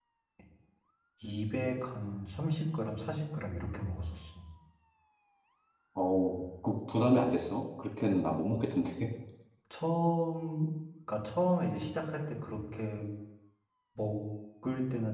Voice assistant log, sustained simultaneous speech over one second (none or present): none